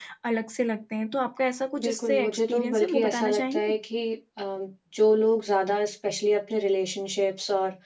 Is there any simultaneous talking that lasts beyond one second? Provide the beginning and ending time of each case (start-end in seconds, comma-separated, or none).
1.8-3.7